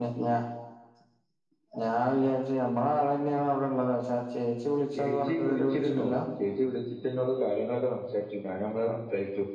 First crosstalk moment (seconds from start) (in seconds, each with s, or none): 5.0 s